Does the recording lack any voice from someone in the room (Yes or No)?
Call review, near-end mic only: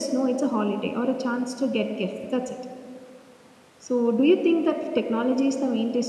Yes